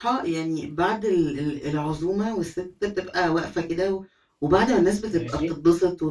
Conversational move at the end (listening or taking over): listening